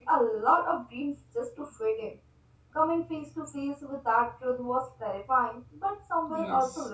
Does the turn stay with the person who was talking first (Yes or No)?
No